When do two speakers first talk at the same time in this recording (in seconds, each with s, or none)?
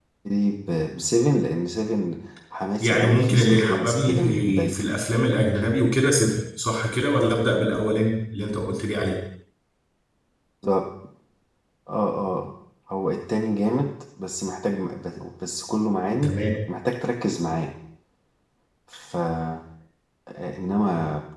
2.8 s